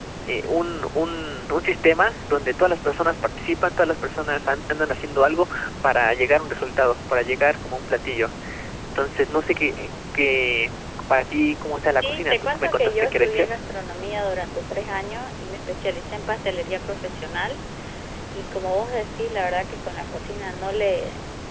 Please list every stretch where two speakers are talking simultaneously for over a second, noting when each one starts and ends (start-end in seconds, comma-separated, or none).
11.8-13.5